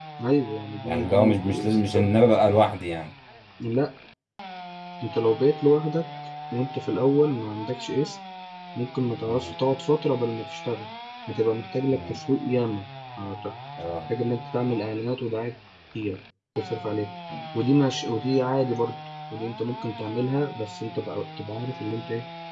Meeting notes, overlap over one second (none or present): present